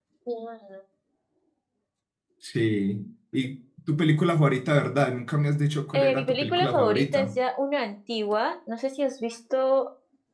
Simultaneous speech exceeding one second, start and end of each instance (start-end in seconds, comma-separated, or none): 5.9-7.3